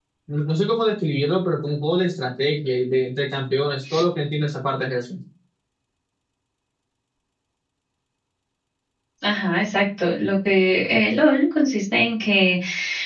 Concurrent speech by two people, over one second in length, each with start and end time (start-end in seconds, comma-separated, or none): none